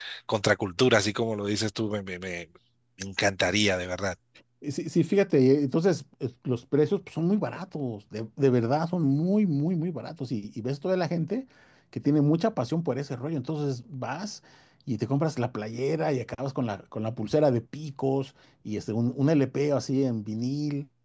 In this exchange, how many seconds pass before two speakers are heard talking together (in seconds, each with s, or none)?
none